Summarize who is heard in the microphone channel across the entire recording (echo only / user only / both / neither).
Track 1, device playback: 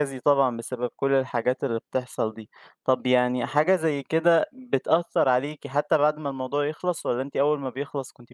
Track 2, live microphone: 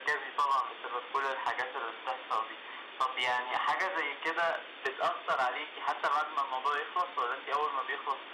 echo only